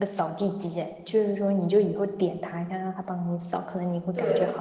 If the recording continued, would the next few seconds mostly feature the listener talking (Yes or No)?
Yes